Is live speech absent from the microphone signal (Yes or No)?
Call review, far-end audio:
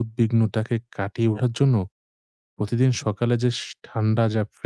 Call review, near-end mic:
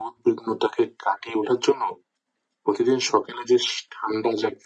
Yes